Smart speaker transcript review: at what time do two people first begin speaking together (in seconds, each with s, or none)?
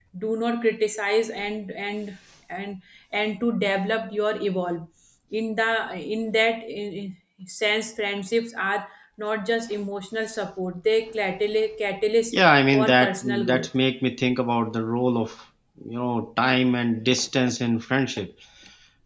12.3 s